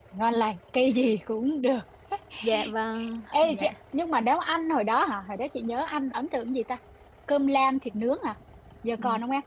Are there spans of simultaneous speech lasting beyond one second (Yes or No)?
No